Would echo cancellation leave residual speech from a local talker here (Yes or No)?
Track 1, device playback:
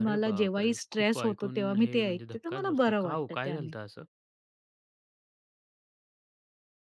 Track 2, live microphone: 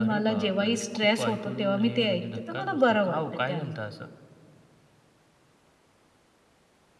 No